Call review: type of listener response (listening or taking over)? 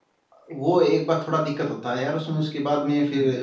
listening